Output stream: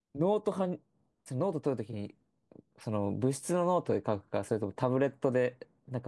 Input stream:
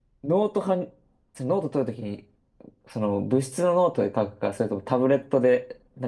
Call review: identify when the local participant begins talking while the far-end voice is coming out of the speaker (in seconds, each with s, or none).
none